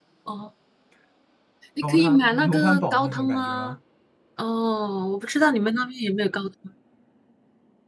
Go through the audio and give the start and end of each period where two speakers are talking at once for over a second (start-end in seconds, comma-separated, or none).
1.8-3.7